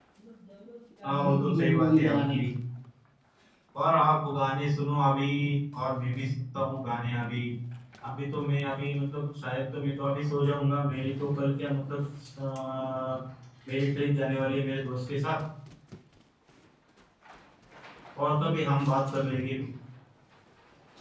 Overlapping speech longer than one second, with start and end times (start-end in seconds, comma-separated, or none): 1.0-2.4